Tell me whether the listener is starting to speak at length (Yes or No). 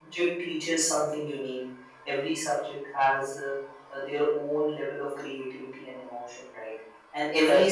No